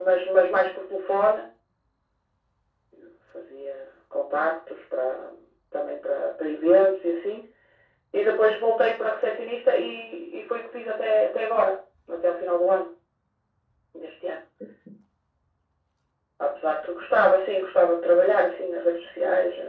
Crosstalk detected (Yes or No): No